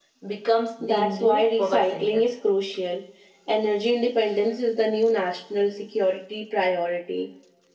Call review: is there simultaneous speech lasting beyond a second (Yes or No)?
Yes